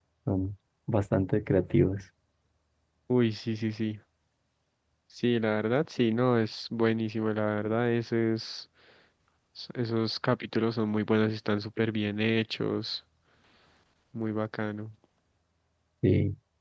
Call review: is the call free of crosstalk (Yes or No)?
Yes